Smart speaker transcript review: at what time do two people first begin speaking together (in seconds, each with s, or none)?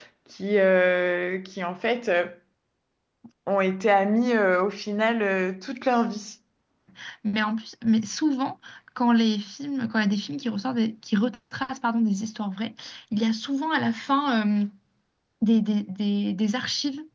none